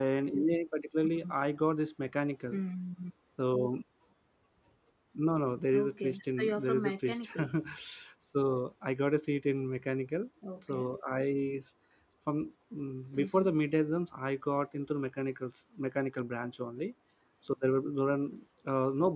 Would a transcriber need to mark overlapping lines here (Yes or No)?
Yes